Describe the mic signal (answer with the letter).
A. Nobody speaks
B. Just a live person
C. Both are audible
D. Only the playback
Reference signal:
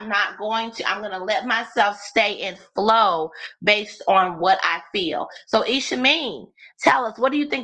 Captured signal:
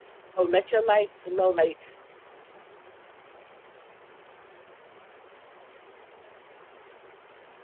B